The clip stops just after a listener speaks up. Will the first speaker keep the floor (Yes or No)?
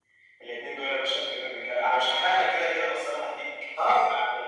No